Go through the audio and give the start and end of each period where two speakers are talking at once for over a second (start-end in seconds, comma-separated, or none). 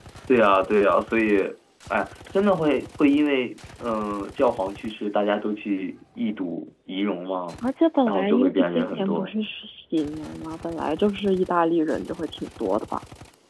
8.1-9.3